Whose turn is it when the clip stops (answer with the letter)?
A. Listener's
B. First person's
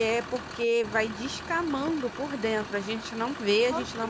B